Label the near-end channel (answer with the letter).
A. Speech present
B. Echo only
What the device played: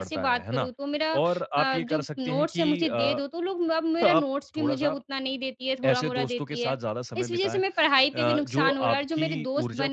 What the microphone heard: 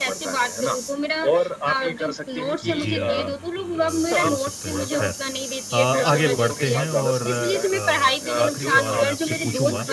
A